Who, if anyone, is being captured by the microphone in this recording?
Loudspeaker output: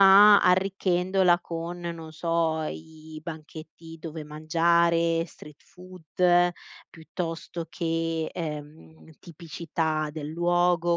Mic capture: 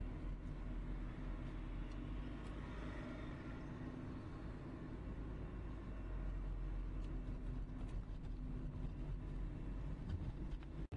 neither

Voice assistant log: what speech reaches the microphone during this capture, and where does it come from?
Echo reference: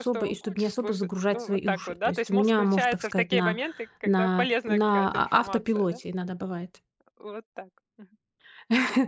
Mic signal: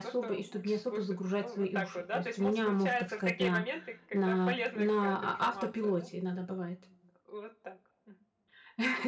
echo only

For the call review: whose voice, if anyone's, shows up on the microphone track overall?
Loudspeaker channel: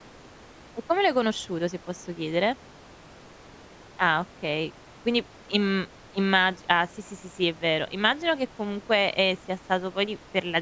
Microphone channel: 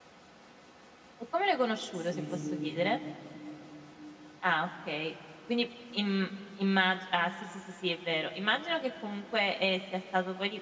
both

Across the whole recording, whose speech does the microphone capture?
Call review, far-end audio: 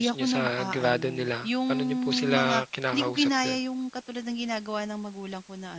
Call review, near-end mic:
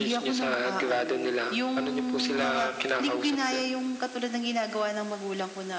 echo only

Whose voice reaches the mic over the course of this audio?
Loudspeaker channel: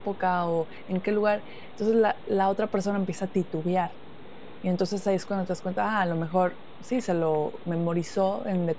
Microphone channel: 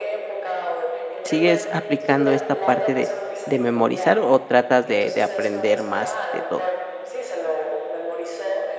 both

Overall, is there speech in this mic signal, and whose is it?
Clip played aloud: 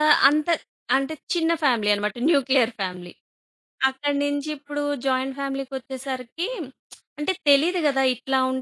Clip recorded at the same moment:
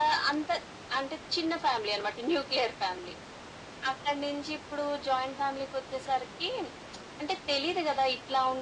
echo only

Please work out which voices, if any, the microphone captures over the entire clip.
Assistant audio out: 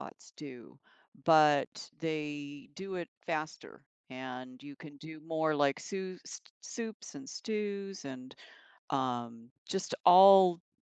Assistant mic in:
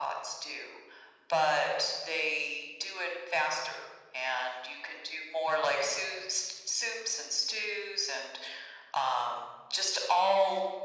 echo only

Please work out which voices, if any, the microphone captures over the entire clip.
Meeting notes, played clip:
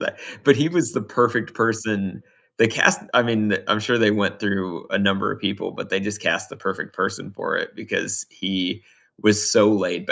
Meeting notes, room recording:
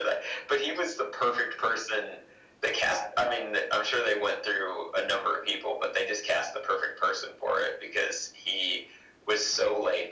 echo only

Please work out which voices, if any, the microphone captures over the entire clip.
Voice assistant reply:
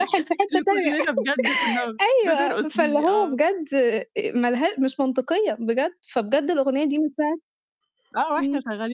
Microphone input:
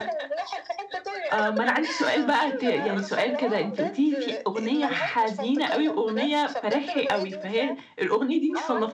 both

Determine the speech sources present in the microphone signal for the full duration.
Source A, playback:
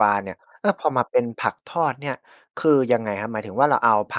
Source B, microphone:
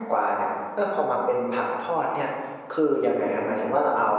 echo only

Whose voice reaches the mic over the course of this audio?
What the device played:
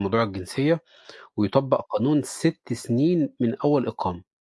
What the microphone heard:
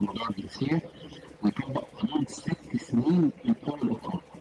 echo only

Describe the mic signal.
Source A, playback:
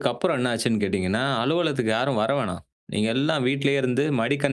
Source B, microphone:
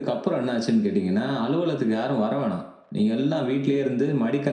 echo only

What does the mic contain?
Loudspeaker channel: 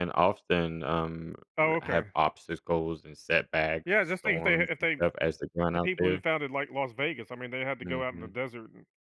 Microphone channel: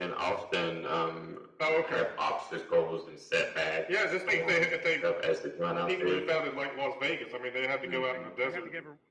both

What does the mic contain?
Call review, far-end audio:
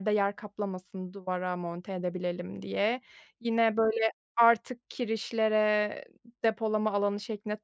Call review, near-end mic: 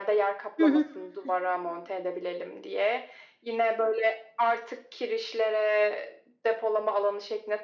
both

